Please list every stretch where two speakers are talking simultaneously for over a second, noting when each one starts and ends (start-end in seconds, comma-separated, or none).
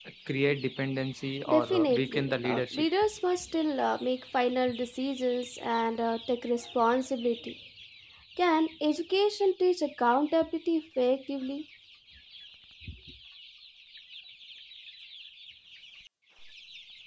1.5-2.9